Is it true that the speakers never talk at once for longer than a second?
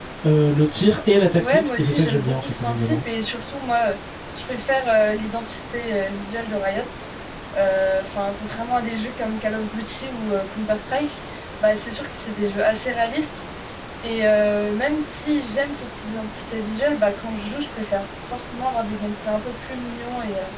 No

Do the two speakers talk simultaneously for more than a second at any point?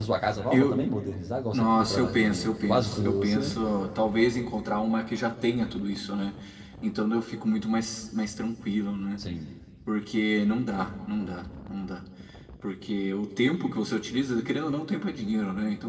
Yes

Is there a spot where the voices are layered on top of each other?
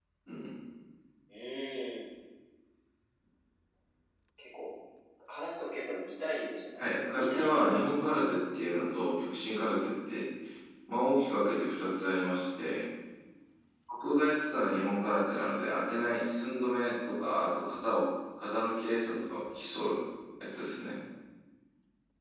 Yes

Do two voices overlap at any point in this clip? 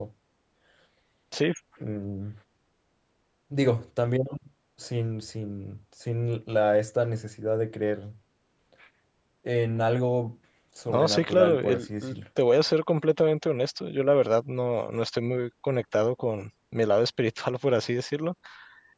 Yes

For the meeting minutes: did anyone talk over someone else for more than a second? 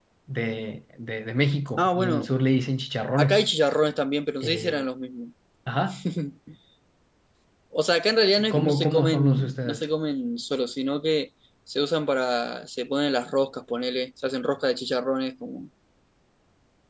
Yes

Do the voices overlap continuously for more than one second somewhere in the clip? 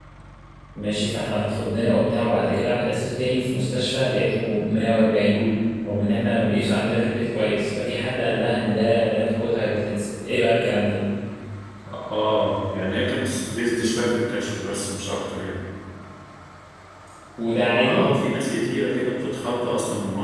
No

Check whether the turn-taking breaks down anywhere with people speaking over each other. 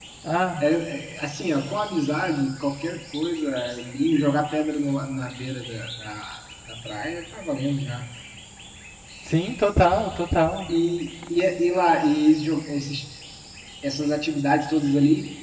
No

